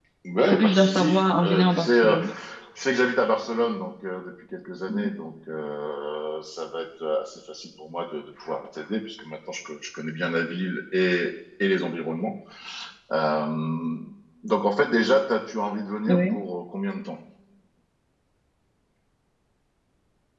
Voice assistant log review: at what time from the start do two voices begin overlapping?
0.5 s

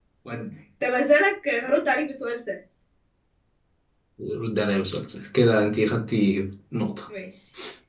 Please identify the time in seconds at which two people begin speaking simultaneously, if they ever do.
none

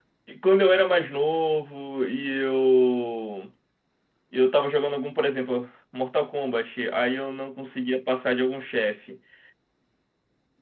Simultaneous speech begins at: none

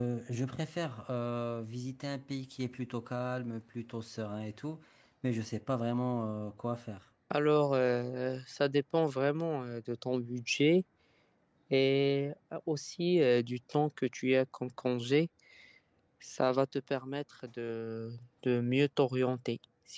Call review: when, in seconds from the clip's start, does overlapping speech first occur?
none

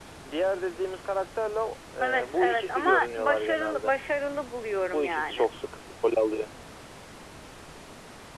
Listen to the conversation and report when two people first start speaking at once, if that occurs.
2.0 s

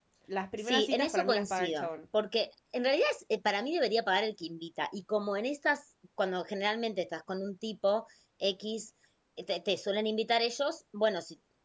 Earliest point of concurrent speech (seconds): 0.6 s

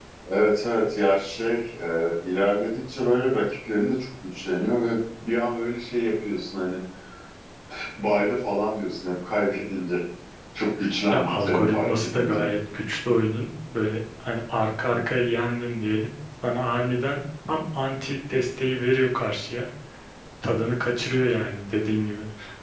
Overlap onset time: 11.1 s

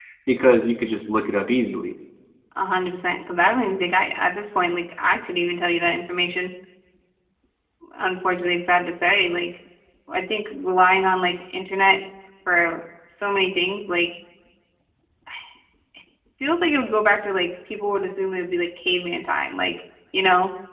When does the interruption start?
none

